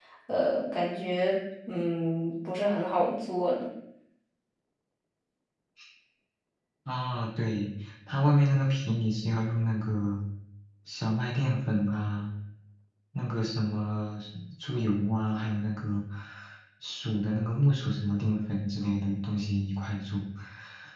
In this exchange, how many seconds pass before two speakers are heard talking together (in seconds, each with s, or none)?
none